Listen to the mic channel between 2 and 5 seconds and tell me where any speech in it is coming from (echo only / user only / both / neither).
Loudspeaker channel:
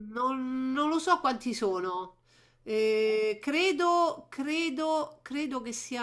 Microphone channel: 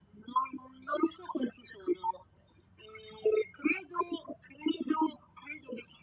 echo only